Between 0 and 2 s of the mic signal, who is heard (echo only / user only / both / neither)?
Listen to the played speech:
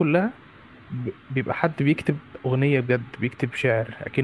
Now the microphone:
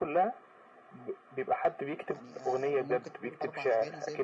echo only